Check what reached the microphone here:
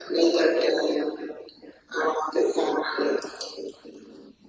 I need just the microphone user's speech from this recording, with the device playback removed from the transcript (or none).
none